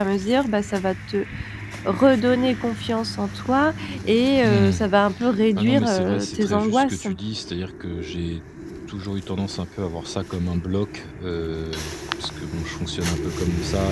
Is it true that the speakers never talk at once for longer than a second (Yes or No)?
No